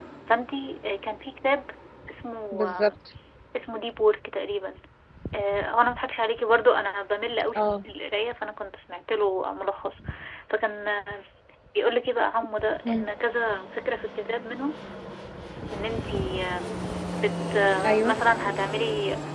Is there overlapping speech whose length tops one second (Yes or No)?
No